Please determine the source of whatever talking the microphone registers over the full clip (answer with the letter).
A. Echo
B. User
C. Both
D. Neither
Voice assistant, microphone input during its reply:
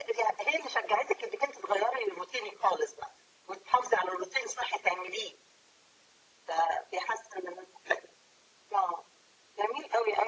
A